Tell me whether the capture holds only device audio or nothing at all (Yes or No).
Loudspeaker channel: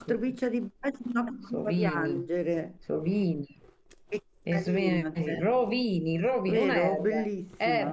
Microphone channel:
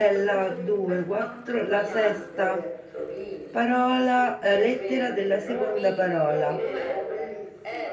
No